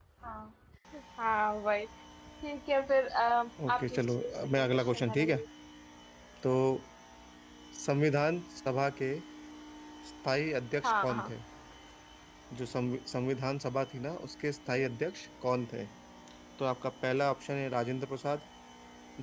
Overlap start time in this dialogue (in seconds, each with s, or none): 3.7 s